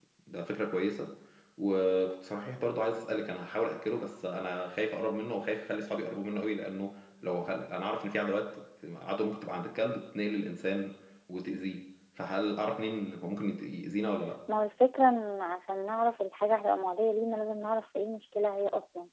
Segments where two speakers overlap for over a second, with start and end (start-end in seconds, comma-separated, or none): none